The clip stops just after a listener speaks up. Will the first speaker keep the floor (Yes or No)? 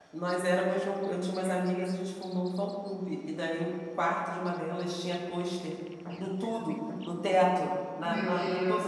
Yes